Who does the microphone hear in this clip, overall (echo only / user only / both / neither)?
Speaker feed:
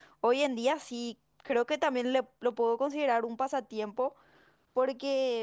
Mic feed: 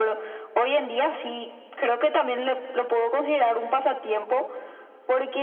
echo only